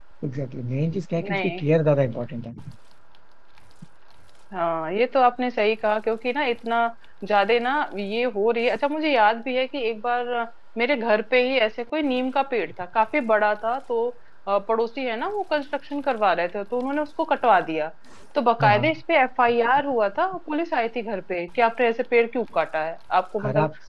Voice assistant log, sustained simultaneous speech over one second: none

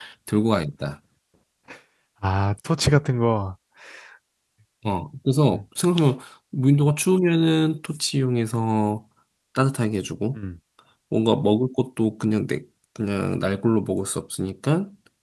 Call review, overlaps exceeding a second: none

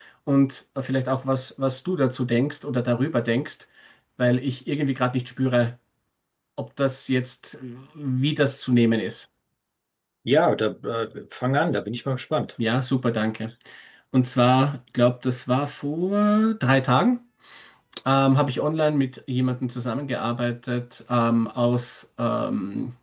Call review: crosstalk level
none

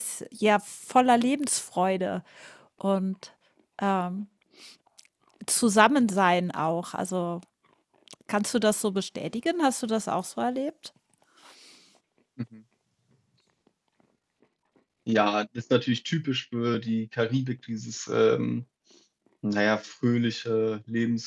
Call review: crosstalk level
none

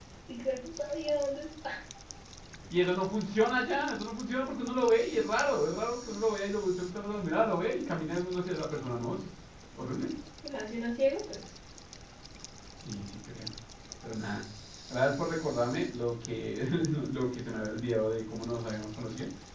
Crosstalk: none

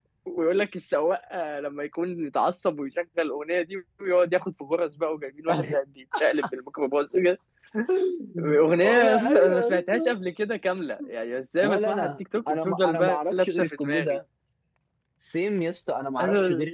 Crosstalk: present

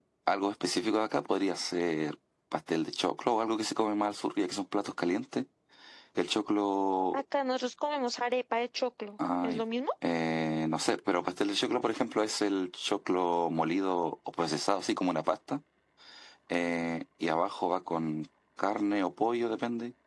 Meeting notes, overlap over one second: none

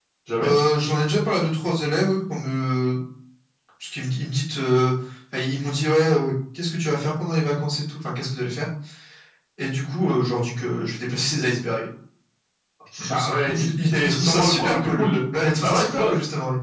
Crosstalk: present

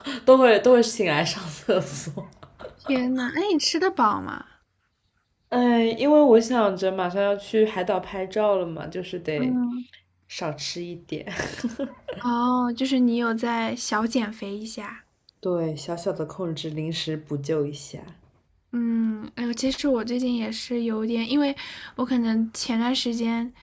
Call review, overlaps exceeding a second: none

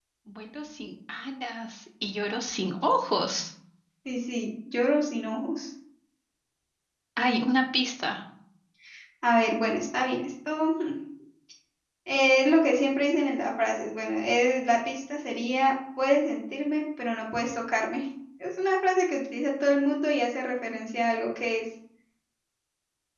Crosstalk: none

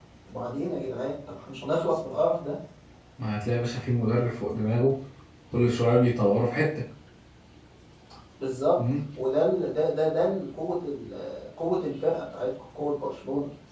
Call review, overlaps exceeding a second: none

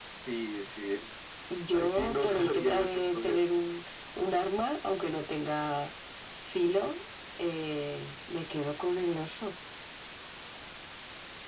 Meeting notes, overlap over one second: present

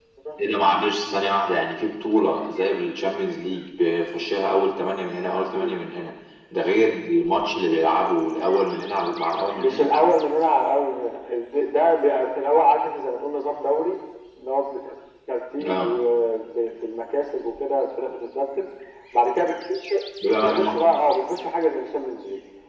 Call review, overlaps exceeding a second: none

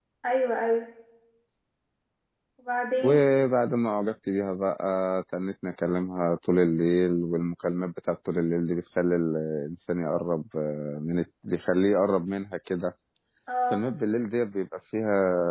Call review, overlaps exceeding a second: none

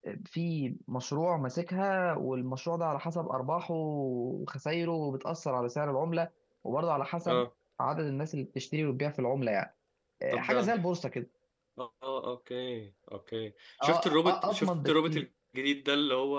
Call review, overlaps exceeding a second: present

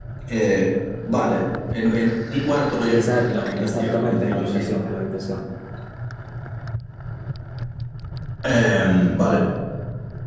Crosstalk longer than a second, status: present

